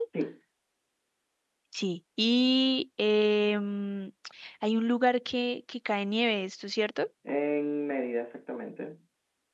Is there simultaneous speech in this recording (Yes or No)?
No